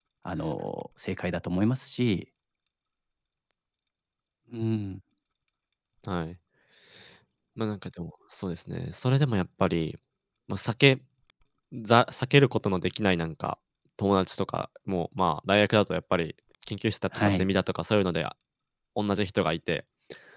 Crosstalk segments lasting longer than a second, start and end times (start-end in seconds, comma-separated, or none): none